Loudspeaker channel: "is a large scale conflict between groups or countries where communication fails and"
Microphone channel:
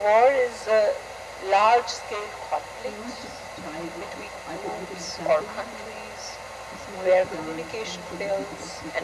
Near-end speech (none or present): present